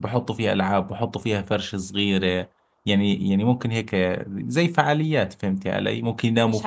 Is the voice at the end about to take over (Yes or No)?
Yes